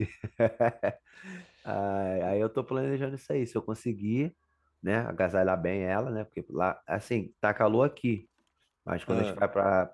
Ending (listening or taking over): listening